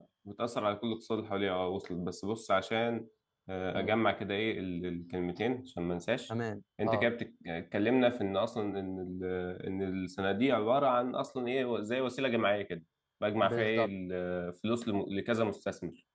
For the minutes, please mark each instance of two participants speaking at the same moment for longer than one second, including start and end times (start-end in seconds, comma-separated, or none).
none